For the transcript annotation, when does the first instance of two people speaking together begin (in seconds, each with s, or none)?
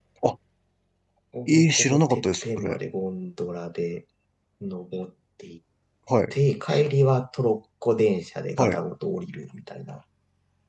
1.5 s